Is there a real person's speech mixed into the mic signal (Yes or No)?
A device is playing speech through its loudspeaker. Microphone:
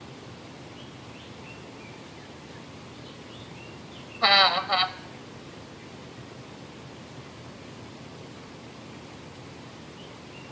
Yes